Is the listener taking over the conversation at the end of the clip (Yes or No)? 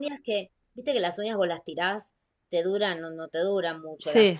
No